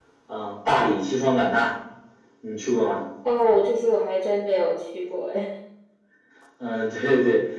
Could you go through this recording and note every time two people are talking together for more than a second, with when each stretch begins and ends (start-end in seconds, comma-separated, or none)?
none